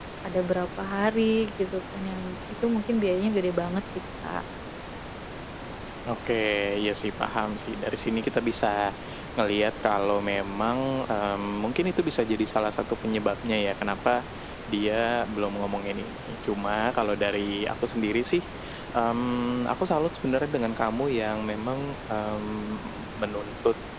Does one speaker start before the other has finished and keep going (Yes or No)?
No